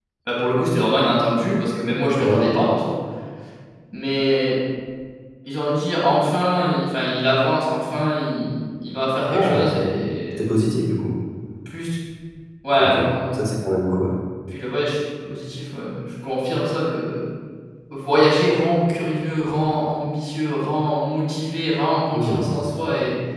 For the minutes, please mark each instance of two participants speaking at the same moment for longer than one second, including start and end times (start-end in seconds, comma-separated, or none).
none